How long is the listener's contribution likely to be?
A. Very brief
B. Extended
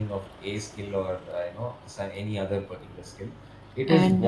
A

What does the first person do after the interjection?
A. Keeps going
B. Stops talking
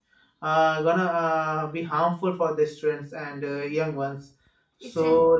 A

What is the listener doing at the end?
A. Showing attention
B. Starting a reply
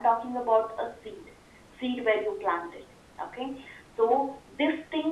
A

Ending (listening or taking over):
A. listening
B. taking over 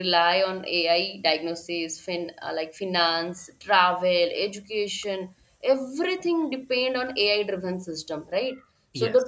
B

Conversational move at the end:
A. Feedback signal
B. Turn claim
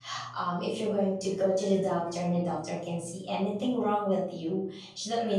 A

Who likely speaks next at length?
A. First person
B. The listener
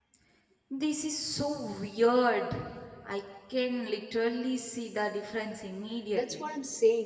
B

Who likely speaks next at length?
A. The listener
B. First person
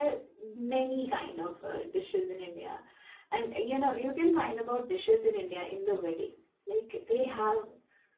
B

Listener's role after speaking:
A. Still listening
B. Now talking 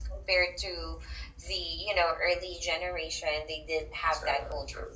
A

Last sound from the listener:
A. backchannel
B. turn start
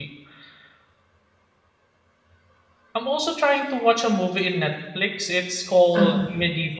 A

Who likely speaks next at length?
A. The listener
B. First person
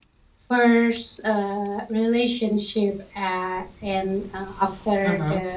B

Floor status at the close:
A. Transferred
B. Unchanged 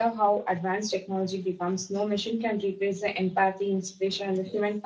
B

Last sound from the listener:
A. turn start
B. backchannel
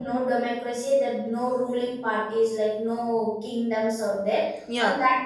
B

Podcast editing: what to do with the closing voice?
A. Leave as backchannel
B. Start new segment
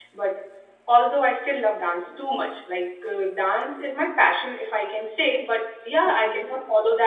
A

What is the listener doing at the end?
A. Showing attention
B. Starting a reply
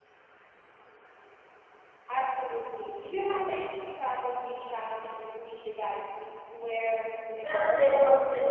B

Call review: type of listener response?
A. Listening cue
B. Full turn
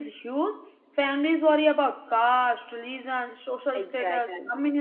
A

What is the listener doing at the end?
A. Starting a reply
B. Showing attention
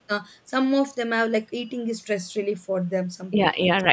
A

